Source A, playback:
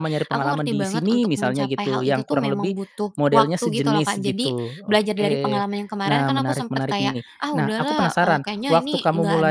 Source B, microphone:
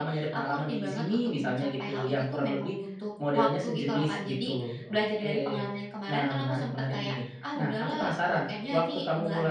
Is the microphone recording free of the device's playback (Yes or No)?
No